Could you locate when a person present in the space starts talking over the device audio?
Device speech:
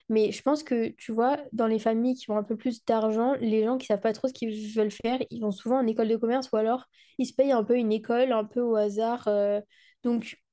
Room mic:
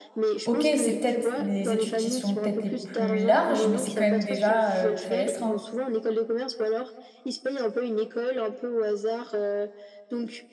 0.4 s

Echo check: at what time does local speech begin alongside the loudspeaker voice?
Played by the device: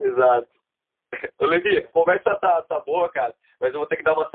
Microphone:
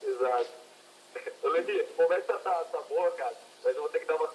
none

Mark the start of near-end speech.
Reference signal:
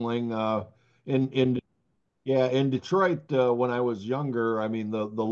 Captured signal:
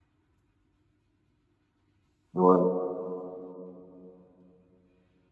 2.3 s

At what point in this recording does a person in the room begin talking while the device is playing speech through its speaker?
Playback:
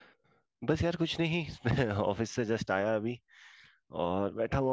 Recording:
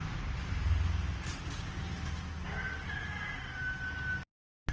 none

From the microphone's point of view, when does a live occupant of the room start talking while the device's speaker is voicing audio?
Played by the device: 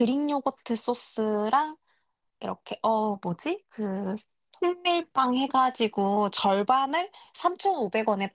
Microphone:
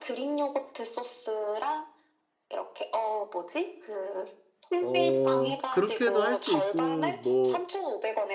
4.8 s

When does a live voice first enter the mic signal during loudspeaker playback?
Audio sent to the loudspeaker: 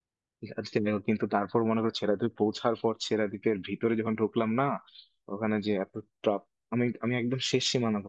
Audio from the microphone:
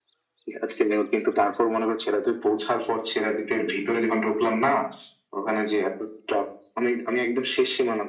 none

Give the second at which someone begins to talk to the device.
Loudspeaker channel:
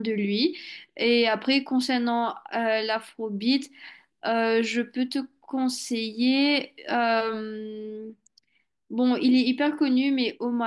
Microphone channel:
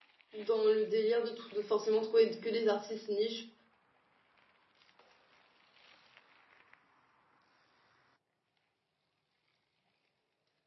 0.3 s

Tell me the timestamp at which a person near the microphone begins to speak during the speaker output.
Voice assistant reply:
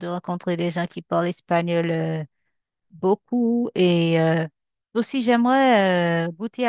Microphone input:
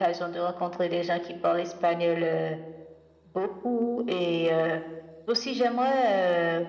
none

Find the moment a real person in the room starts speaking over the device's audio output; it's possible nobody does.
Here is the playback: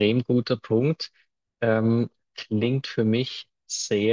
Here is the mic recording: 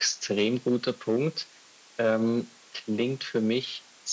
none

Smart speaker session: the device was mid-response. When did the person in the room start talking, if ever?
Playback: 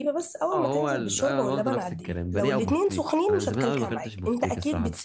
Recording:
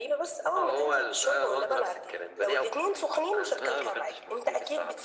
none

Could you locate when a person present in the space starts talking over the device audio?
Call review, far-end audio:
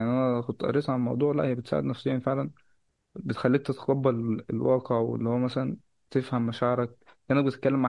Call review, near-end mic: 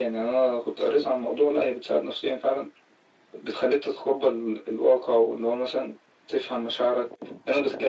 none

